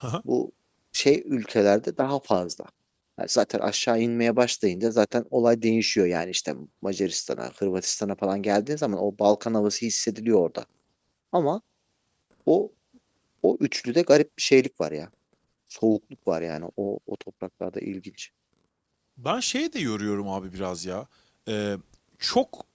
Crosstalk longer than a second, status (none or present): none